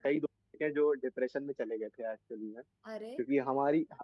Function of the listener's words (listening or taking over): listening